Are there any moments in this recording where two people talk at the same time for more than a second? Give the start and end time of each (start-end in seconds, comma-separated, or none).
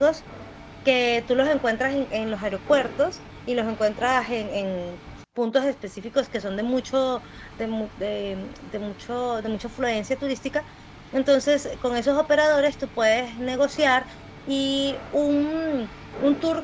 none